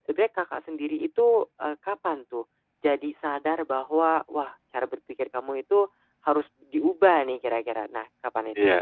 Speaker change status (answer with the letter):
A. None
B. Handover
B